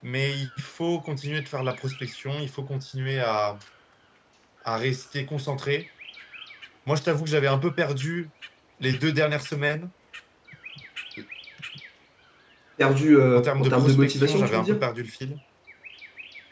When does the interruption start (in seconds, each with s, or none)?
13.3 s